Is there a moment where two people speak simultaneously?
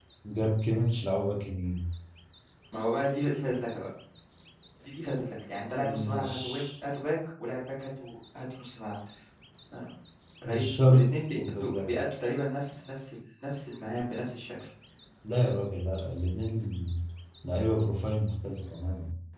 Yes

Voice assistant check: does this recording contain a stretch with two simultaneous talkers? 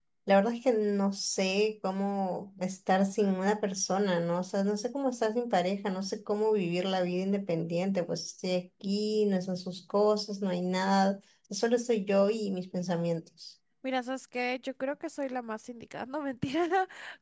No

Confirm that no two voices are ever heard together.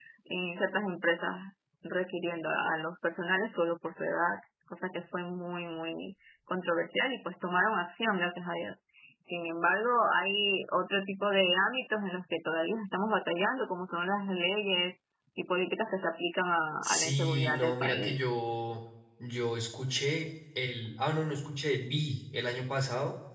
No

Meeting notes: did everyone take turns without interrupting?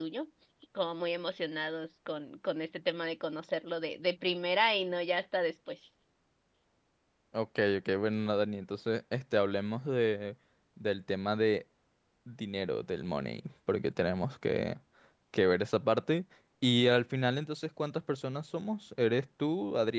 Yes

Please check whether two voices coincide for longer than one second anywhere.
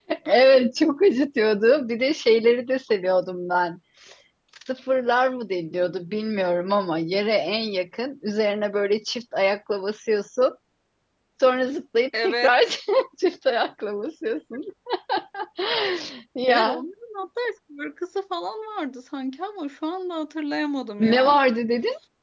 No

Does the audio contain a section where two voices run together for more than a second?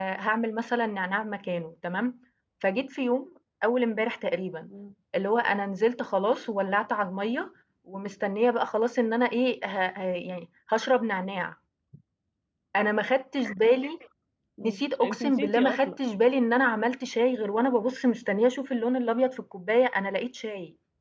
Yes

